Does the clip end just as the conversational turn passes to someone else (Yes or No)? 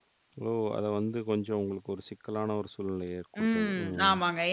Yes